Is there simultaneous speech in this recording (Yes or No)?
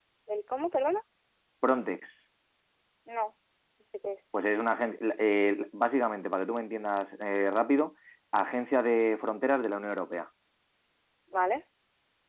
No